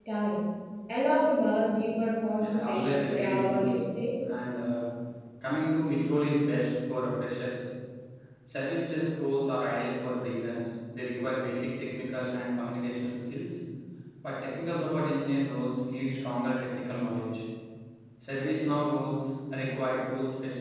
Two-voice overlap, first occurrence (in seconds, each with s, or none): 2.4 s